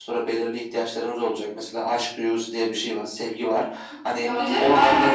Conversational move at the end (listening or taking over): taking over